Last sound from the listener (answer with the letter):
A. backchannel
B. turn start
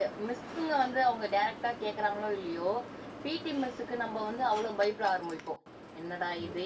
A